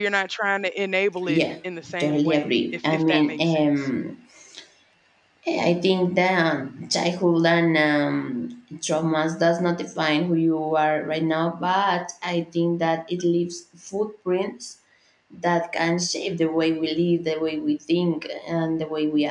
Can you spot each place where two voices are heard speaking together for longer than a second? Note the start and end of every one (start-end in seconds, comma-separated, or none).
2.0-3.9